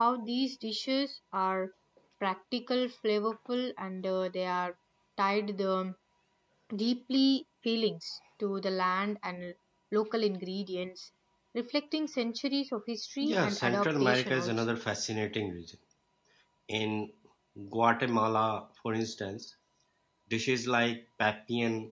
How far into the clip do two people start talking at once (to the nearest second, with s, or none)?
13 s